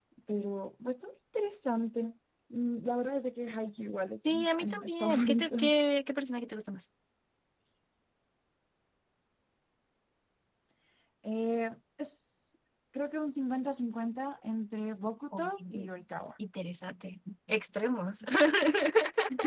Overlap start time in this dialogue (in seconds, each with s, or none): 4.2 s